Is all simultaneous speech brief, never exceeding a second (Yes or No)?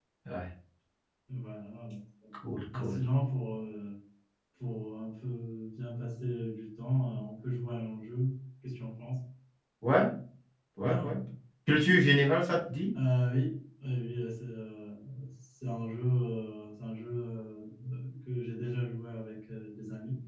Yes